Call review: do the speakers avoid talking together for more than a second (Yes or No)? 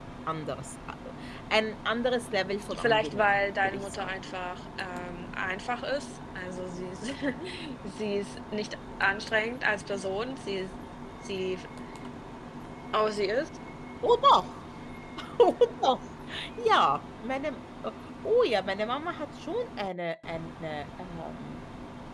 No